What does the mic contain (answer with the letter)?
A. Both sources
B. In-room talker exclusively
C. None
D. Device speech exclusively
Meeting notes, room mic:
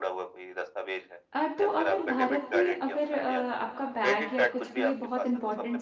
A